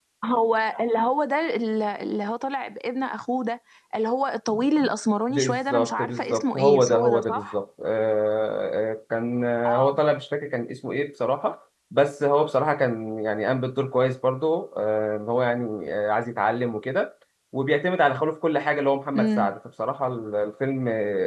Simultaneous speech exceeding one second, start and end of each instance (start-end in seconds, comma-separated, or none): 5.3-7.6